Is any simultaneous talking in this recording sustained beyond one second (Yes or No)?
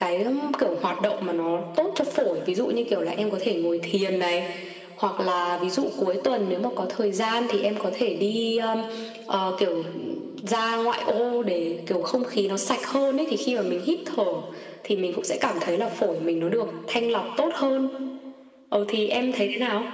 No